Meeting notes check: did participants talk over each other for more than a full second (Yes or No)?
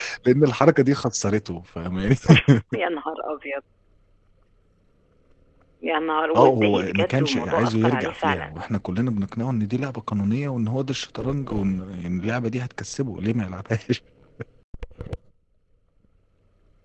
Yes